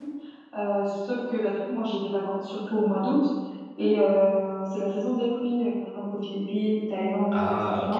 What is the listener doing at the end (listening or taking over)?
listening